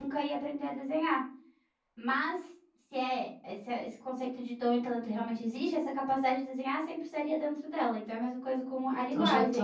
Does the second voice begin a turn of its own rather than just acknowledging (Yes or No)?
Yes